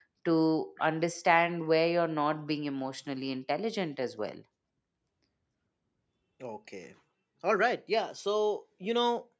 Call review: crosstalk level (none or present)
none